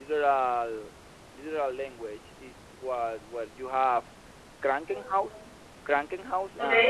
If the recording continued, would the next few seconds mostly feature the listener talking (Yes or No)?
No